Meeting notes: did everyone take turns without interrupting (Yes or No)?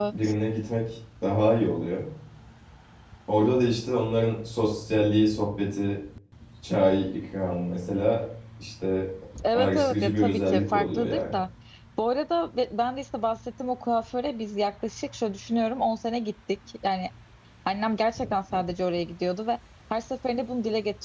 No